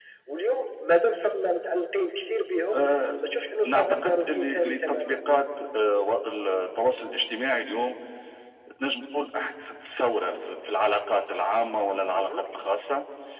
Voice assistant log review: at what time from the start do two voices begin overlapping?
3.7 s

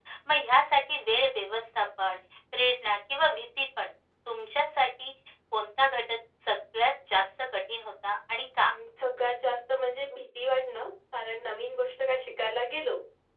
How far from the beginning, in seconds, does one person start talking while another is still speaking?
none

